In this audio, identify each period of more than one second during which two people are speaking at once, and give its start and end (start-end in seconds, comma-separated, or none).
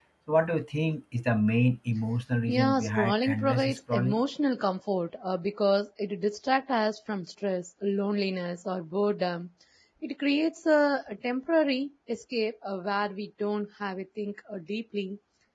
2.5-4.2